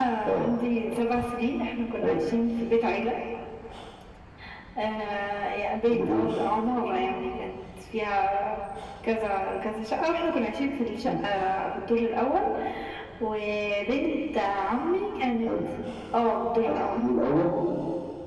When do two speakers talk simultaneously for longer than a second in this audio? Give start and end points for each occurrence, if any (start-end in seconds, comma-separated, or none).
none